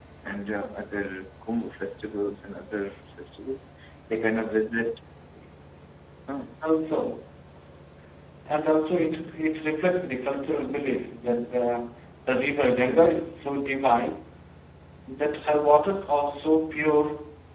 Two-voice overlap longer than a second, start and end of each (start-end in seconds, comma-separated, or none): none